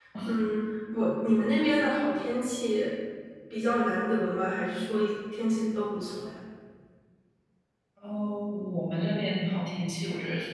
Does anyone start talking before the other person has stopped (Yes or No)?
No